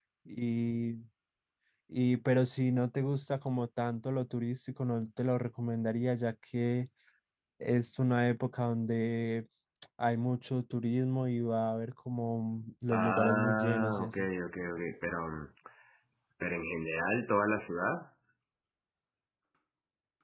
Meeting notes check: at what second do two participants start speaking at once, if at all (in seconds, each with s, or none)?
12.9 s